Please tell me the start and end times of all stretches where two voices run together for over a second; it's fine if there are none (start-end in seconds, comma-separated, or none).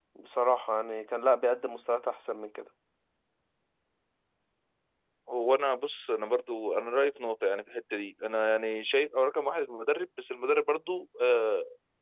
none